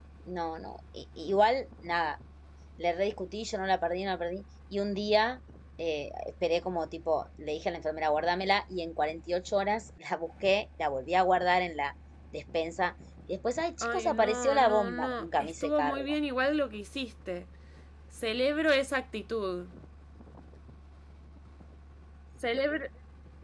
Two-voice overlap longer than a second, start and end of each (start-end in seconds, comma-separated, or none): 13.8-16.1